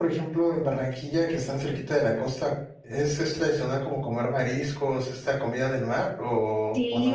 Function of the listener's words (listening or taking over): taking over